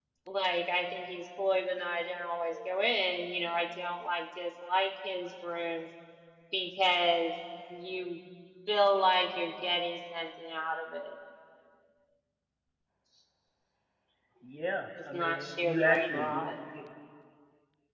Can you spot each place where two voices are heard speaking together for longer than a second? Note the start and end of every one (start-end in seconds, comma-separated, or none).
15.1-16.4